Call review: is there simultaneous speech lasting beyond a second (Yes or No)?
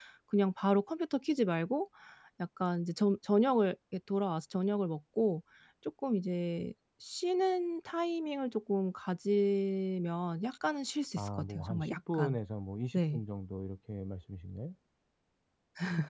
Yes